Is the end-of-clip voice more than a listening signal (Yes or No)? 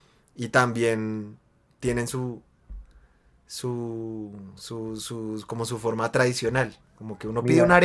No